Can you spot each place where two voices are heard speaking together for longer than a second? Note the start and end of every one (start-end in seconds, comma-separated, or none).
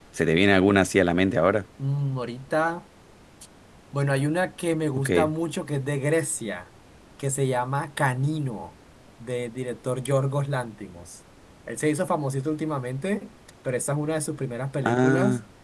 none